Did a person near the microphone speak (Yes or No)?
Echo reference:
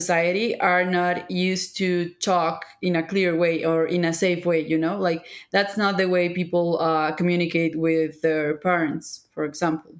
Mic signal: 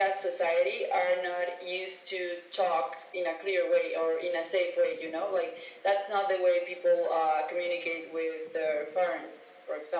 No